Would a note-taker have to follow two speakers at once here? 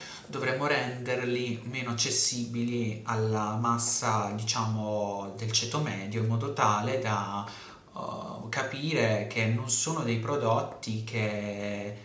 No

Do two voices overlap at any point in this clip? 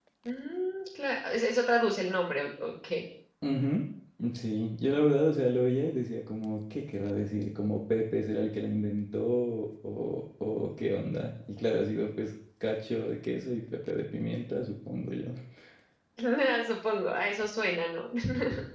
No

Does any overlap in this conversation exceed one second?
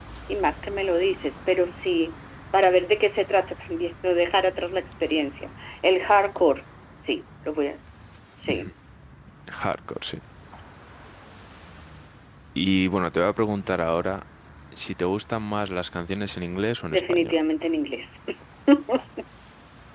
No

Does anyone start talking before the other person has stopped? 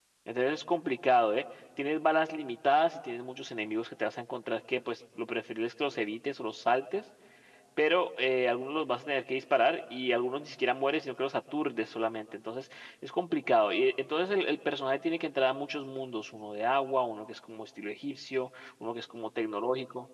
No

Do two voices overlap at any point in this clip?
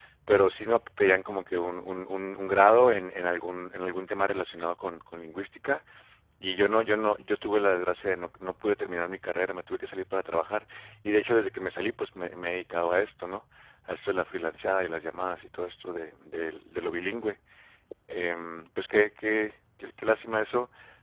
No

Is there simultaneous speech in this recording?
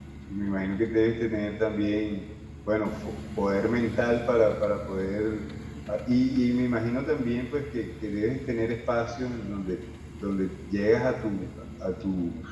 No

